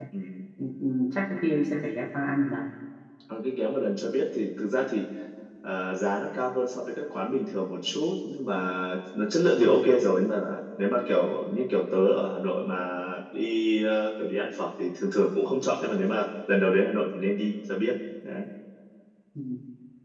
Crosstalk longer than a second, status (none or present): none